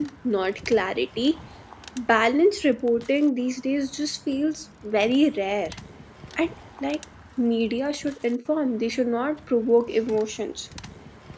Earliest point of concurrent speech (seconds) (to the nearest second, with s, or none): none